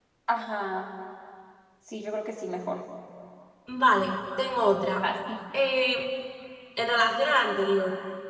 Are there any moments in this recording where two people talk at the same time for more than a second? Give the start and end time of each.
none

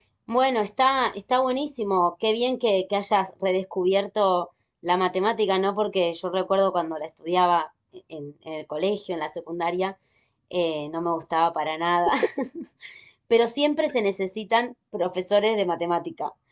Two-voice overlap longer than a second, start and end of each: none

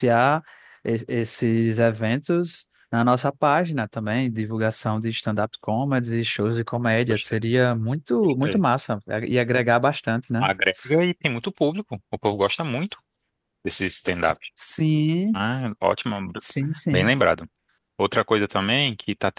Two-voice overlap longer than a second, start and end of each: none

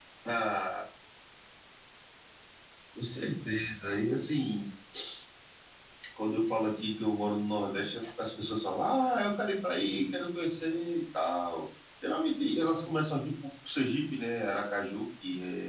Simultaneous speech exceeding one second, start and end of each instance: none

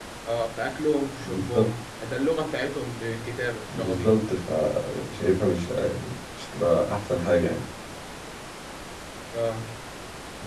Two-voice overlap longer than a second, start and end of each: none

